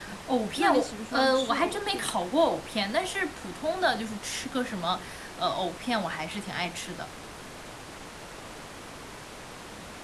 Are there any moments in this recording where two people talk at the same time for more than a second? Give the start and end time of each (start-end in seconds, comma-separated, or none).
0.6-2.2